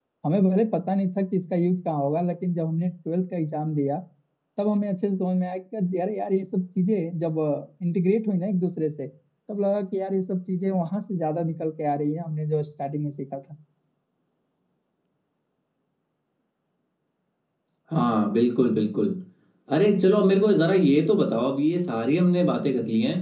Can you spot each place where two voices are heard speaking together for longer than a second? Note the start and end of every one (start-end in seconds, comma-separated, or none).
none